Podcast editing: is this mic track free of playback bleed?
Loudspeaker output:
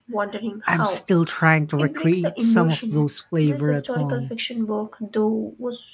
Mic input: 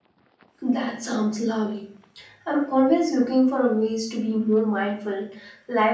Yes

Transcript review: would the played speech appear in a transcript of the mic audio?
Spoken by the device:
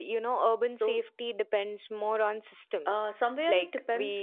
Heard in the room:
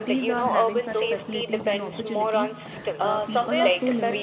Yes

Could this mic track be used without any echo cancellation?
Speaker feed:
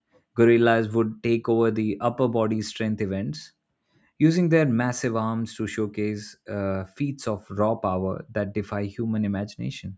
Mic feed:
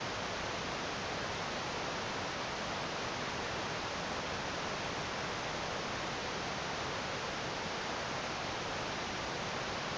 Yes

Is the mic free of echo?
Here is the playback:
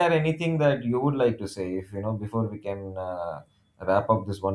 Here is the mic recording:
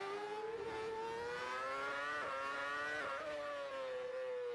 Yes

